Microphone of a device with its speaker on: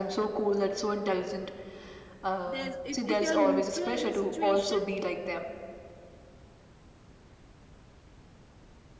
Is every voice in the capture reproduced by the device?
No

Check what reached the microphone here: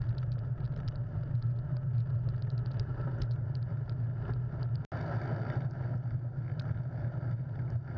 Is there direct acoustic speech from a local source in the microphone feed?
No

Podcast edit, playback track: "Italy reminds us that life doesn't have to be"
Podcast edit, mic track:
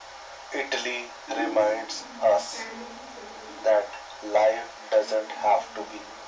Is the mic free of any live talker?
No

